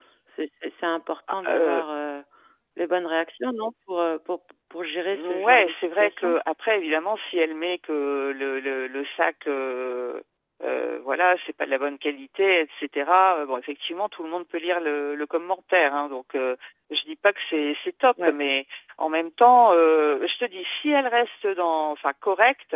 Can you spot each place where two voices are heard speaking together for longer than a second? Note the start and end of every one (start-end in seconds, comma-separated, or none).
5.1-6.4